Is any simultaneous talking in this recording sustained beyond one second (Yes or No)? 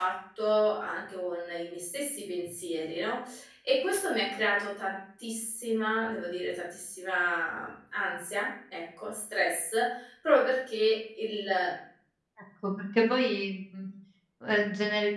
No